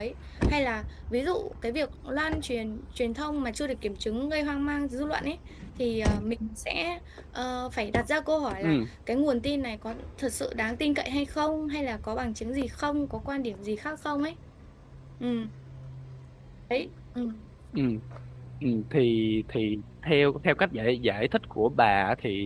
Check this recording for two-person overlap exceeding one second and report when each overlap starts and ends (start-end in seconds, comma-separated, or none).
none